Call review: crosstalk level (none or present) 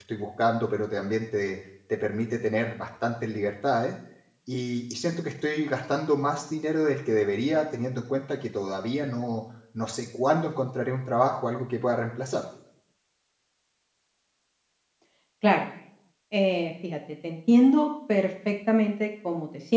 none